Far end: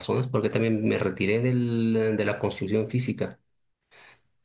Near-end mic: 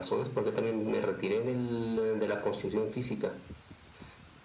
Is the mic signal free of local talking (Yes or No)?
Yes